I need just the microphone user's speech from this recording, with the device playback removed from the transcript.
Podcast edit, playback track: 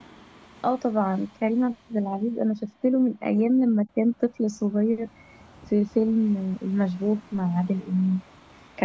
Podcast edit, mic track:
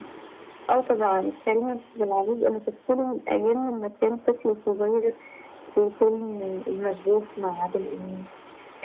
none

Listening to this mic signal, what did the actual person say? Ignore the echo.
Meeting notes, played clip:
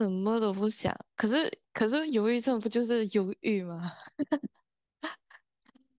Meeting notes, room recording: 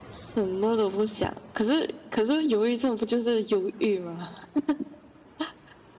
none

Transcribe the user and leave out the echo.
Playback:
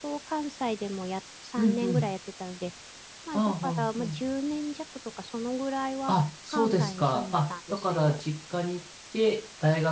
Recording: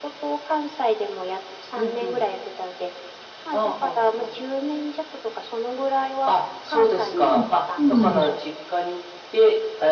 そうなんです。そうなんです。

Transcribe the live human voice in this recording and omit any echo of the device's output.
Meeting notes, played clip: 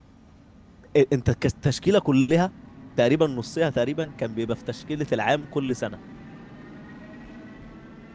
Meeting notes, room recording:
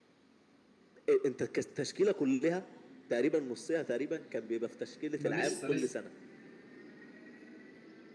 انا لسه لسه

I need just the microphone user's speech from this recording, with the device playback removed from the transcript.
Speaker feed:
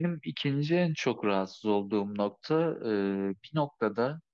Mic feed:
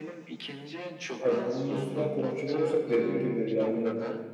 yani bunun üstüne konuşacak olursak dediğin gibi yani

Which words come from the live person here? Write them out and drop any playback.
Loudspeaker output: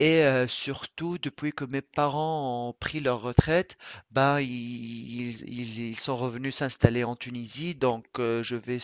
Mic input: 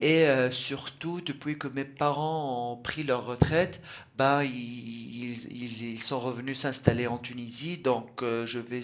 none

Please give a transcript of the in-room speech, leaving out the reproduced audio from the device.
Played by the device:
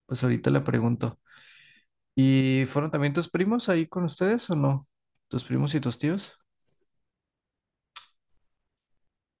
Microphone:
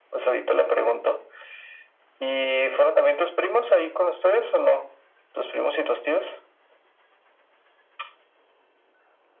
none

